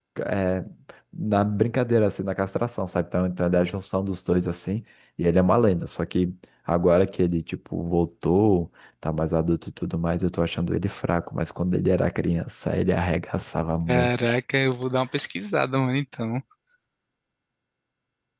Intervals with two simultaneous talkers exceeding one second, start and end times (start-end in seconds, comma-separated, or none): none